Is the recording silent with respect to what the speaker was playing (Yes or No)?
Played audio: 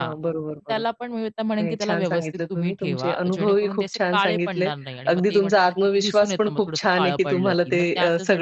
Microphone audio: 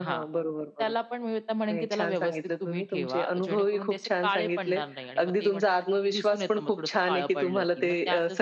No